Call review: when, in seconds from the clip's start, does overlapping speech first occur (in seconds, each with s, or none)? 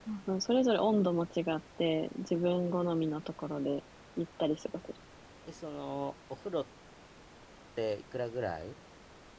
none